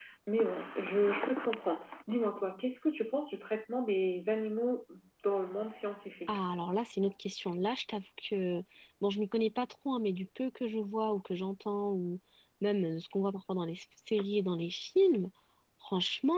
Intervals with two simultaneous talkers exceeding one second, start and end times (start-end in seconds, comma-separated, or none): none